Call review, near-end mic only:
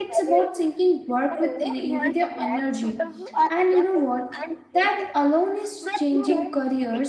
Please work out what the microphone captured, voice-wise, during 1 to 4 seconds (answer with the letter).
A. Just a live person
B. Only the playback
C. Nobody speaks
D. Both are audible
D